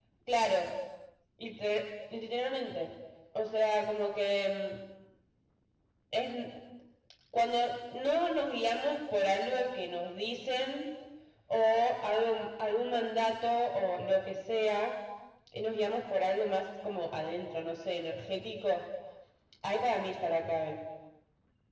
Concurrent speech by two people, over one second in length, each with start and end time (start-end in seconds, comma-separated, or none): none